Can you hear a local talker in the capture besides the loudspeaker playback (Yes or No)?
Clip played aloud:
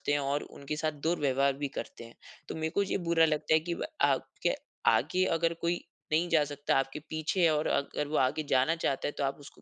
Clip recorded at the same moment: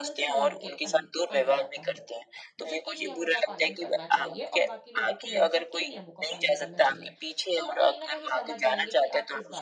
Yes